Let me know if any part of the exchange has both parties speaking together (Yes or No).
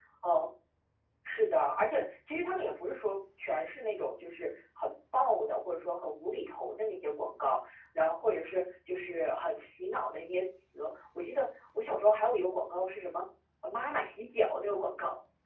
No